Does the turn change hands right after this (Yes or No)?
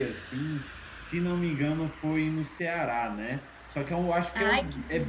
No